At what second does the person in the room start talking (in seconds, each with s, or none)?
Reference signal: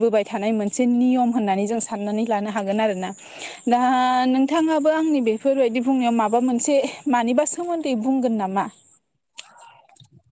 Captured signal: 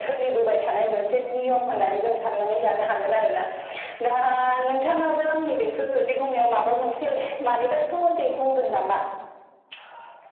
none